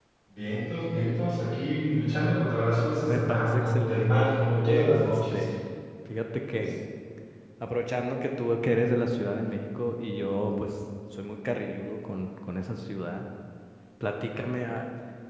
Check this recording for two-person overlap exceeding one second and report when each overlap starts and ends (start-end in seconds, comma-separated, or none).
3.1-5.4